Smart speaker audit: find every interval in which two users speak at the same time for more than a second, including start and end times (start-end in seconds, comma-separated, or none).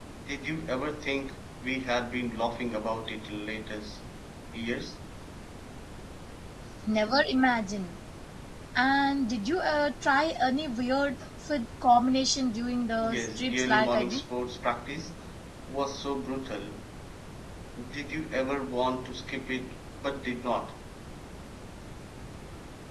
13.0-14.2